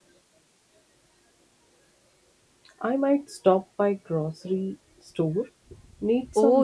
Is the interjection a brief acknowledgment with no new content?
No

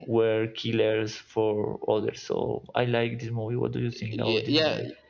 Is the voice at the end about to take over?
Yes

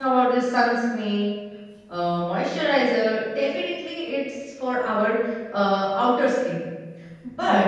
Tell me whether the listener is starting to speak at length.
No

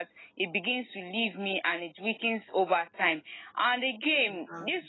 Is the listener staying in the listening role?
Yes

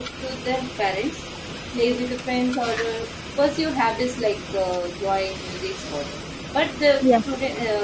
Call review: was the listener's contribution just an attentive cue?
Yes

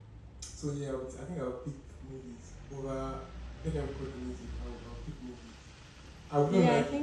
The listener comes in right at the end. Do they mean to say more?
Yes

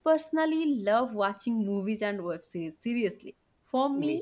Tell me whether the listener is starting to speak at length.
No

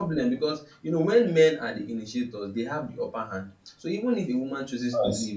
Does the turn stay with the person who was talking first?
Yes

